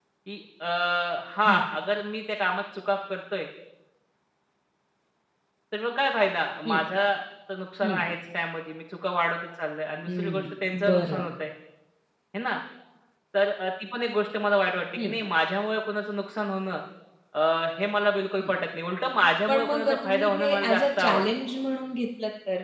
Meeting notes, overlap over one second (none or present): present